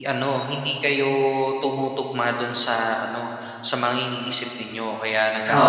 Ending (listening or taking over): taking over